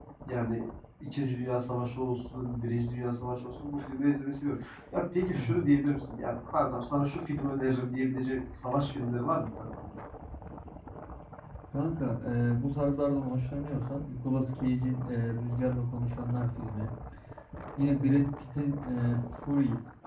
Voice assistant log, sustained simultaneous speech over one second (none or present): none